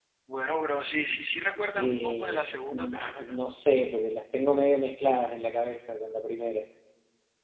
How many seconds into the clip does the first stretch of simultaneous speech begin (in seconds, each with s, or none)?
1.8 s